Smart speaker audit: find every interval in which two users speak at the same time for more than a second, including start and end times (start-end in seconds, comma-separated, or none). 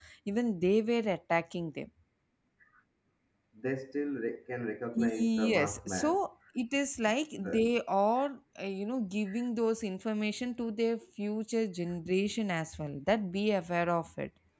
5.0-6.2